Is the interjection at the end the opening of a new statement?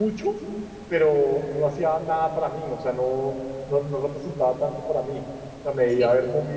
No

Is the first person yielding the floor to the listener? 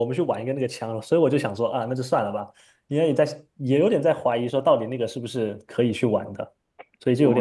Yes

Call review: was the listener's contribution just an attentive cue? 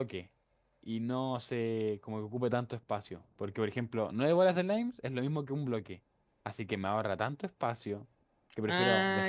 No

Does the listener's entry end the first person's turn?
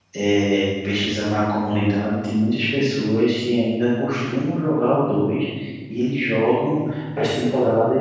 No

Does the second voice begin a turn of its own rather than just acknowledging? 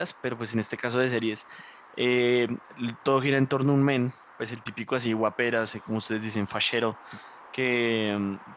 No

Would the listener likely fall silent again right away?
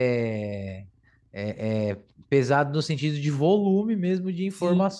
No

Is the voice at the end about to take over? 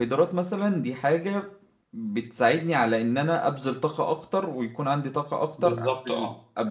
No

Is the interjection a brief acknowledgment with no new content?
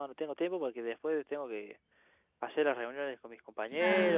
No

